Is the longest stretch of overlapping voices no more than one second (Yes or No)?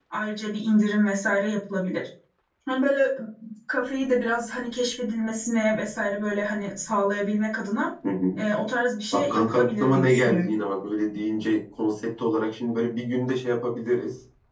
No